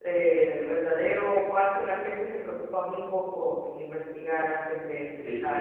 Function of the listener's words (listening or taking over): taking over